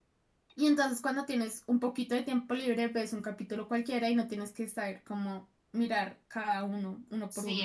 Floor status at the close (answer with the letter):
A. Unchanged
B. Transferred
B